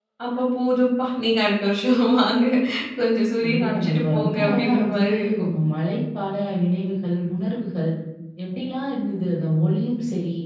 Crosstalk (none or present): present